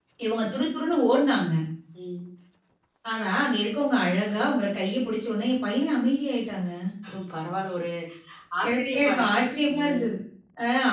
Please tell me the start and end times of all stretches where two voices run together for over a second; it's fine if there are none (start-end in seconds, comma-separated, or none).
8.7-10.1